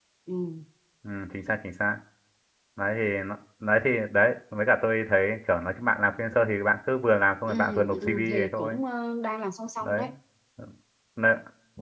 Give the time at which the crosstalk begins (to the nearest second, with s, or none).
7 s